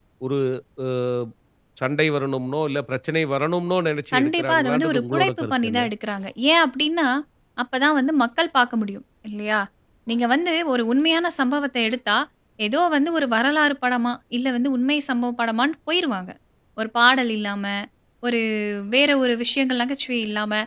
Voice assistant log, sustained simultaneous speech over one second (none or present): present